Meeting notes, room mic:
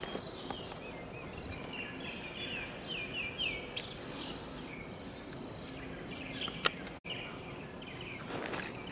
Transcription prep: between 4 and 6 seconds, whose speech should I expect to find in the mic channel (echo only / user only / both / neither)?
neither